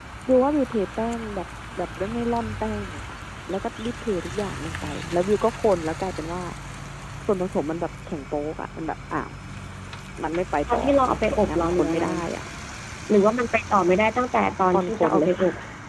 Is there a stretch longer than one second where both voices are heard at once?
Yes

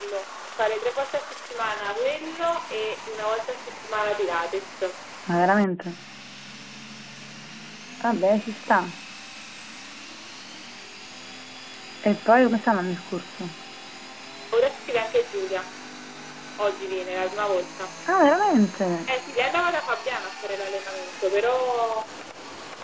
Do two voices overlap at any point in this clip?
No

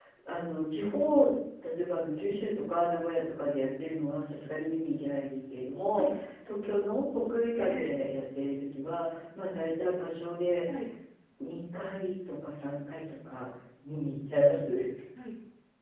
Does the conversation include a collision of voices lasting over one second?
No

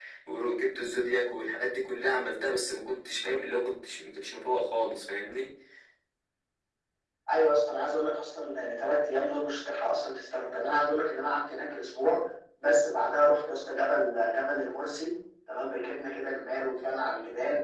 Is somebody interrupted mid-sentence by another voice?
No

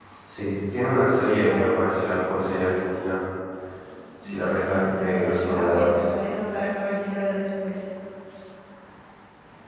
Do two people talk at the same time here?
Yes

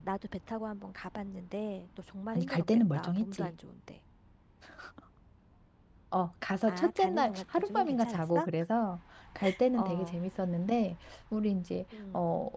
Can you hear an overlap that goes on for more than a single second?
Yes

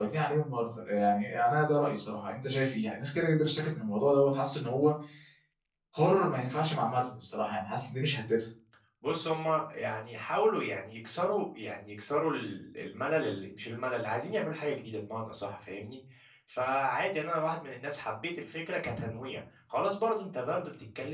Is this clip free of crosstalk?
Yes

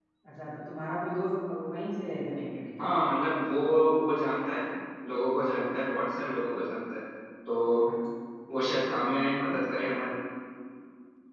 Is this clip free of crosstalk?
Yes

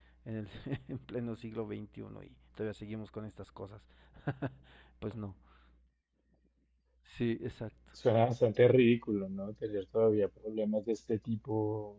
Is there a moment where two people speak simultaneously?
No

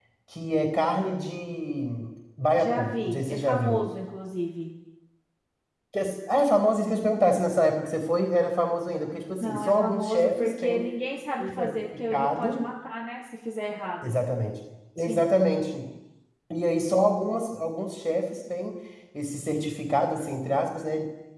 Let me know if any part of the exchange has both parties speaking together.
Yes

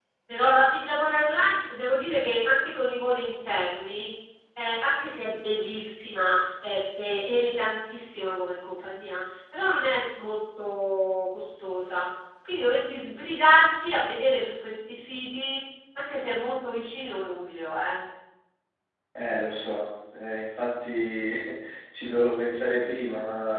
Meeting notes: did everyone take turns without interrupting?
Yes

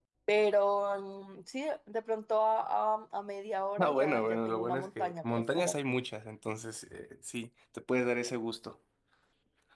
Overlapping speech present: Yes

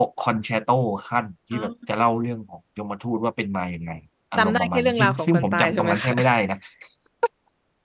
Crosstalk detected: Yes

